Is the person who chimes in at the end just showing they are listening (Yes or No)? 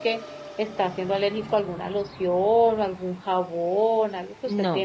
No